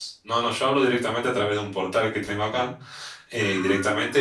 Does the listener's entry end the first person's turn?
No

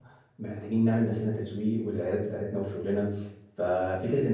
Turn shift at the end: No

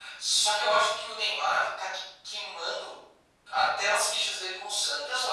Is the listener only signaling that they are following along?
No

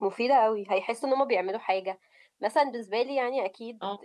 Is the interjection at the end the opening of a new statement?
No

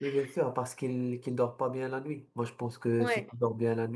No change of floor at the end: Yes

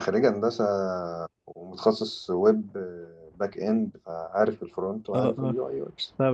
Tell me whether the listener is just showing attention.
No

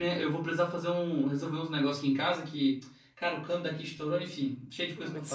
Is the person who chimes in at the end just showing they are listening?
No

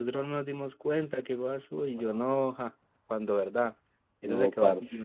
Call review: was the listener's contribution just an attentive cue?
Yes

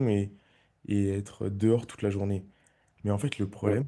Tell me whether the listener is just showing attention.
Yes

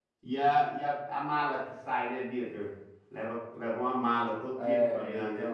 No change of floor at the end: No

